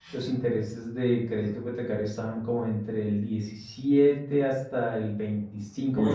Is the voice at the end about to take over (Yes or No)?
Yes